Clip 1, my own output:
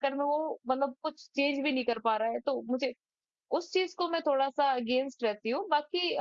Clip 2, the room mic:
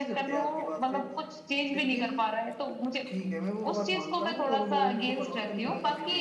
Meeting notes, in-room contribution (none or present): present